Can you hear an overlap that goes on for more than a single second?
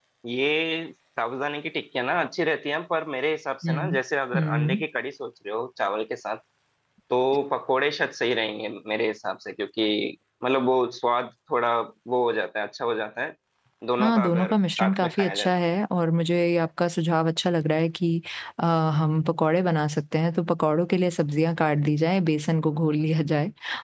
Yes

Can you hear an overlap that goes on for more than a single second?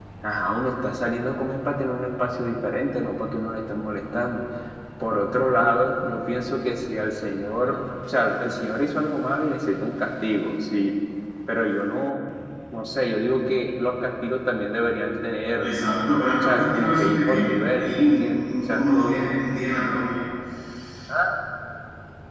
Yes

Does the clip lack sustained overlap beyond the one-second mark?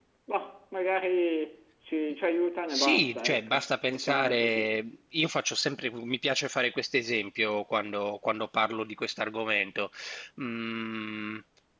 No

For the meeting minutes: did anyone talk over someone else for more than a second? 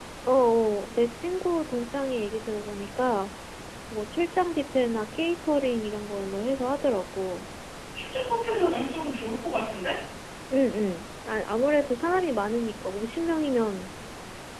No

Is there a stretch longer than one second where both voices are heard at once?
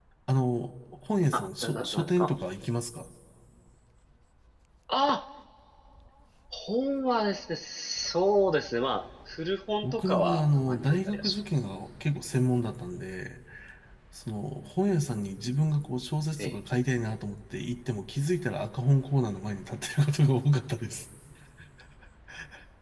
Yes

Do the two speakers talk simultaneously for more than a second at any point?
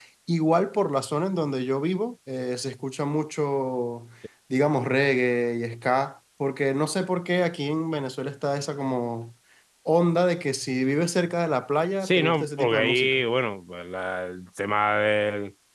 Yes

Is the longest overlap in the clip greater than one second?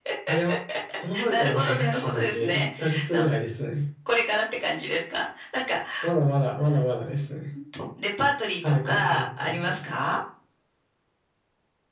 Yes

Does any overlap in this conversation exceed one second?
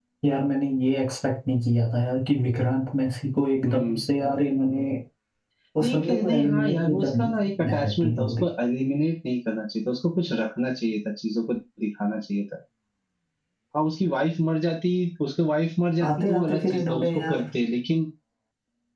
Yes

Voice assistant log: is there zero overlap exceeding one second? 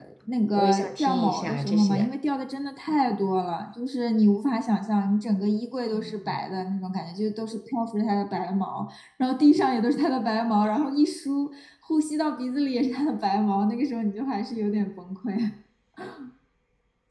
No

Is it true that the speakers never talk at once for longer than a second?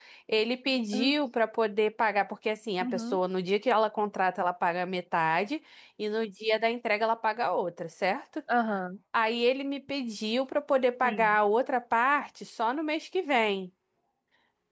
Yes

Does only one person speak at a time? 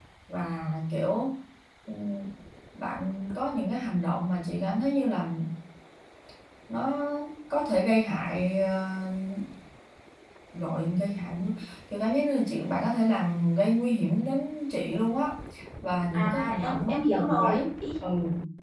No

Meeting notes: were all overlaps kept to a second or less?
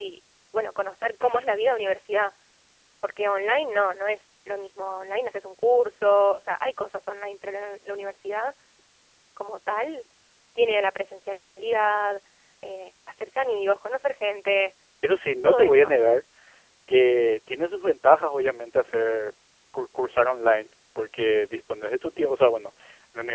Yes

